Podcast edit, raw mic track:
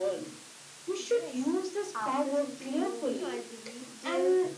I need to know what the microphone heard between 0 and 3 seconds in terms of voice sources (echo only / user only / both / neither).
both